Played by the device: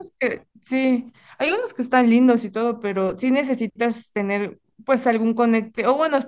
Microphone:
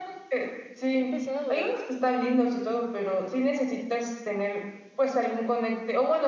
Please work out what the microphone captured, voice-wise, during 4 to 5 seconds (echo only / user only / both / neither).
echo only